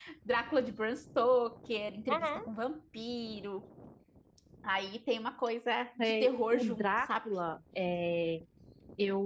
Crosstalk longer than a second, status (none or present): present